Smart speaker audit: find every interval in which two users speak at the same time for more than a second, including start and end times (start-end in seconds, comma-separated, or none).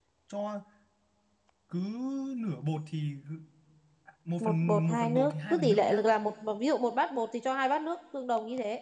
4.4-6.0